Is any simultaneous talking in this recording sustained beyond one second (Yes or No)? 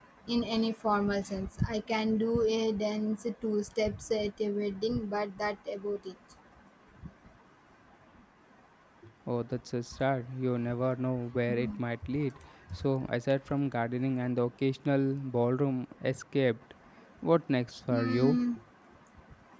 No